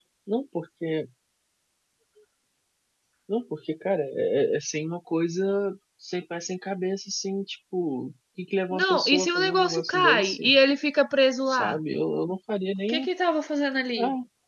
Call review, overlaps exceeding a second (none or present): present